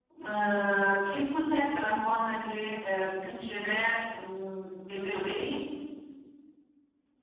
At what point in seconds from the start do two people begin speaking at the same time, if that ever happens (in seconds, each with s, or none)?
none